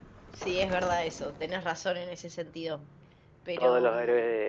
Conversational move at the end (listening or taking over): taking over